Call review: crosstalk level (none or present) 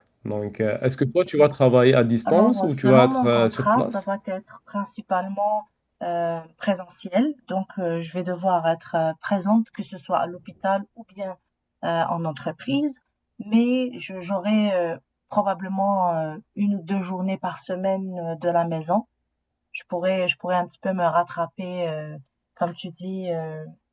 present